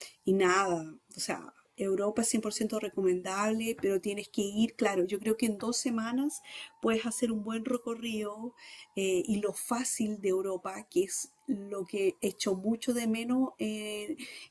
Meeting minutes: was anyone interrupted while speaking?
No

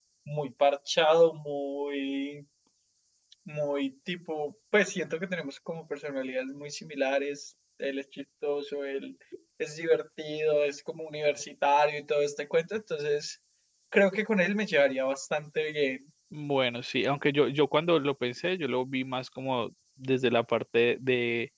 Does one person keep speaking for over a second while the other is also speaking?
No

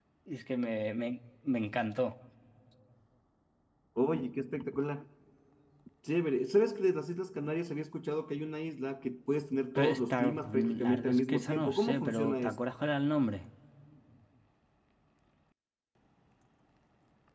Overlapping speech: Yes, from 9.8 s

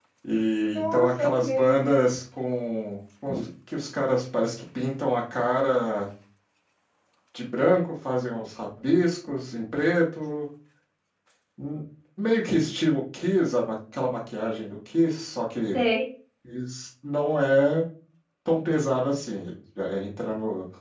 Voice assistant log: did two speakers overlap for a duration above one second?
Yes, from 0.6 s

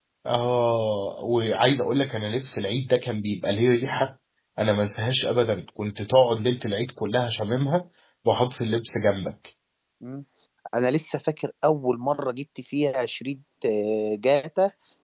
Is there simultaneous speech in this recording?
No

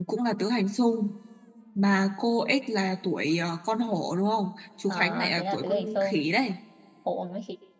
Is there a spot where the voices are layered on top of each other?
Yes, from 4.9 s

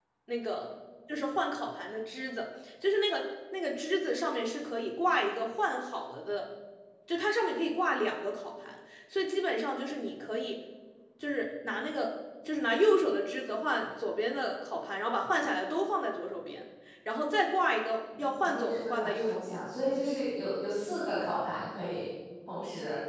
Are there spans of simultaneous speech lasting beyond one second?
Yes, from 18.1 s

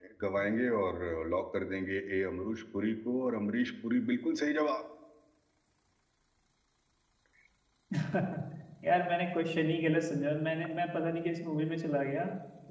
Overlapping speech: No

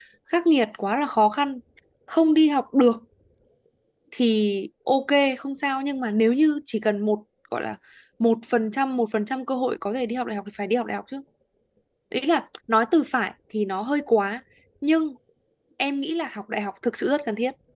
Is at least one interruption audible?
No

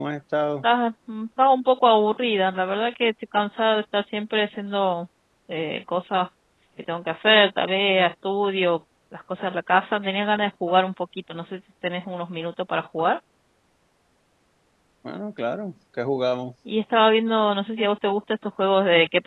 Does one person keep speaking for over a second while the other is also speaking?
No

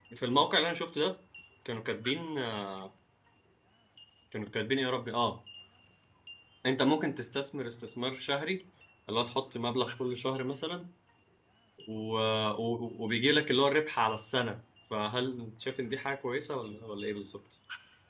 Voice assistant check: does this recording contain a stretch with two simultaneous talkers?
No

